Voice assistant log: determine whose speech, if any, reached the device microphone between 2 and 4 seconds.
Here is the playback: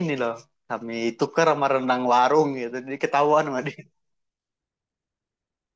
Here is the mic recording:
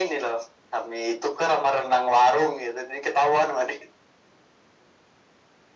echo only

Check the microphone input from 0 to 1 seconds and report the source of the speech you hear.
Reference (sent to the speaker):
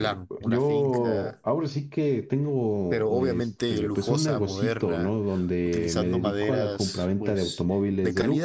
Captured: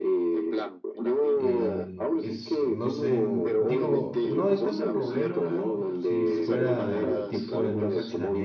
echo only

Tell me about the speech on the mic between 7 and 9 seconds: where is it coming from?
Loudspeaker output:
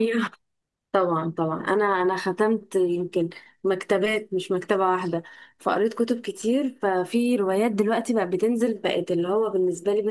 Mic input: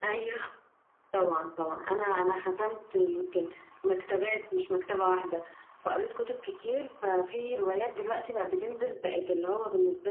echo only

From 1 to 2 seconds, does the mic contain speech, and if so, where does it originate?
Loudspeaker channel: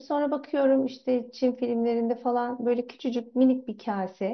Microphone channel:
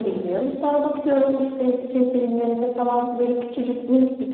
echo only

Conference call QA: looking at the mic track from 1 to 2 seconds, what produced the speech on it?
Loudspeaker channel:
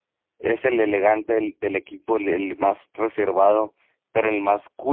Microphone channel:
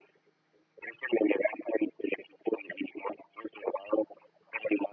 echo only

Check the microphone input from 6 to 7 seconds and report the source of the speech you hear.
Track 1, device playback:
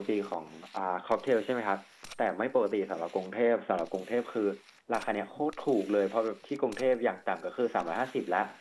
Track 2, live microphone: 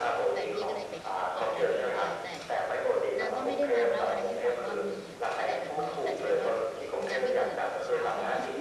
both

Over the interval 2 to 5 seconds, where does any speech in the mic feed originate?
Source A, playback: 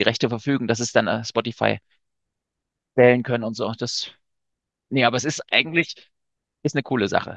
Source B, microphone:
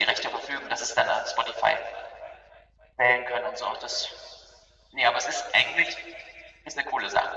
echo only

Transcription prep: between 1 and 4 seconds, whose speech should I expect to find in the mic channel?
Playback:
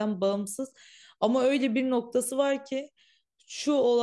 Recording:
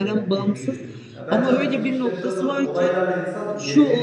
both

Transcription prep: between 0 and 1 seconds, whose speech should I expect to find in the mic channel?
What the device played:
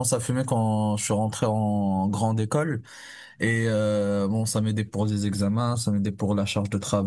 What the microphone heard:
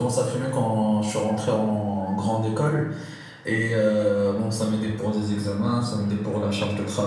echo only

